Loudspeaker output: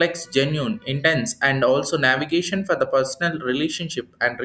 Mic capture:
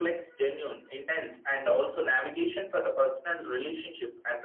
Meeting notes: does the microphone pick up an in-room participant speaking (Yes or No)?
No